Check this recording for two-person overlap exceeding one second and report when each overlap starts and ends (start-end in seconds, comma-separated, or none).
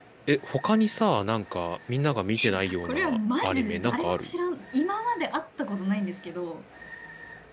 2.5-4.3